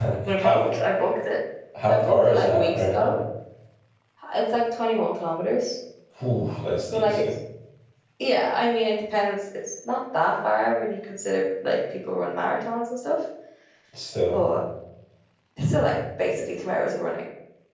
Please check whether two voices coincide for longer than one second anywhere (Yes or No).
Yes